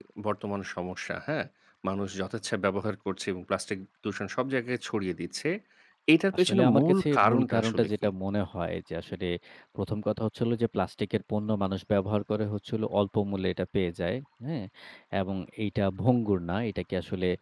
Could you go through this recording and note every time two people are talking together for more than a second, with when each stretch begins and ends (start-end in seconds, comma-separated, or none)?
6.4-8.1